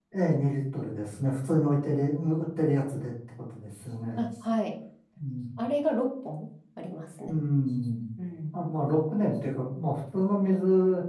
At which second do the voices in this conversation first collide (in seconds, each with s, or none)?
none